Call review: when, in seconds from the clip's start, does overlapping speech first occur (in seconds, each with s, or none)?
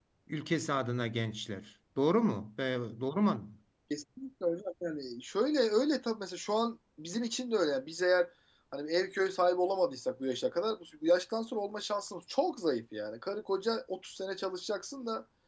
none